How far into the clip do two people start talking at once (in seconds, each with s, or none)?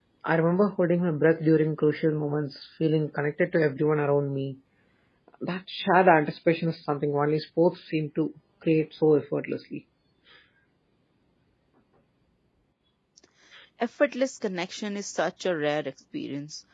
none